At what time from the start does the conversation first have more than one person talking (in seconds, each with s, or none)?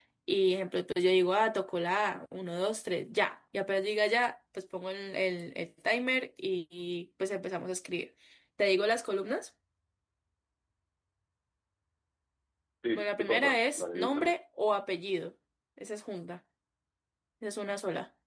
12.9 s